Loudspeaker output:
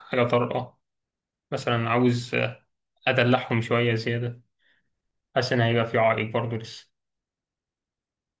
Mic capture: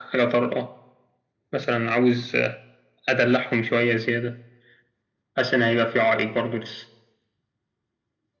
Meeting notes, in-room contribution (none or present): none